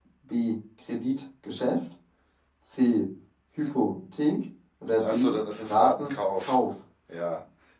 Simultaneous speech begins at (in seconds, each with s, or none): 5.0 s